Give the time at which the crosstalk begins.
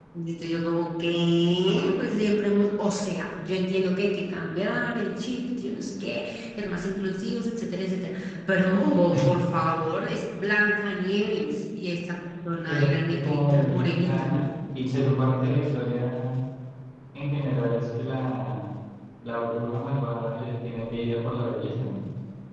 12.7 s

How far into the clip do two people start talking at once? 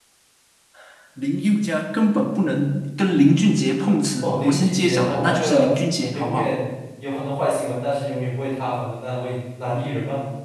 4.2 s

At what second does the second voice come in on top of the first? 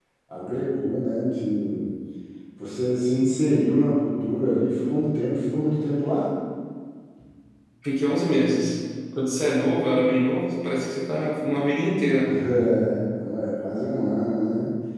none

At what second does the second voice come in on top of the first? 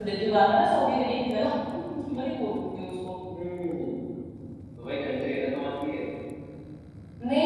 none

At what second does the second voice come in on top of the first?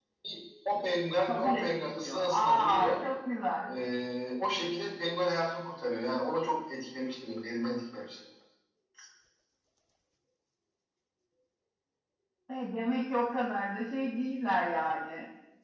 1.2 s

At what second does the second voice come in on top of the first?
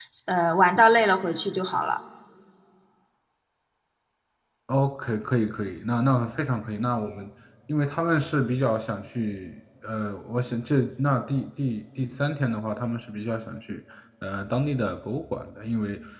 none

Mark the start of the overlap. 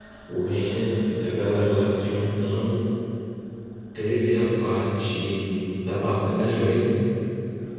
none

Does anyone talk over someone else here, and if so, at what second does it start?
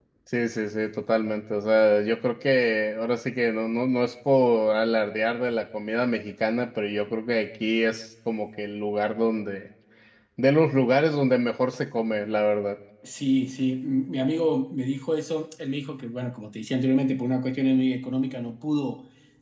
none

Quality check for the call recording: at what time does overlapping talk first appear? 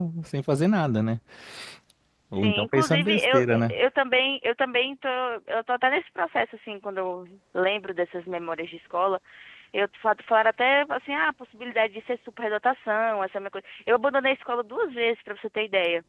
2.3 s

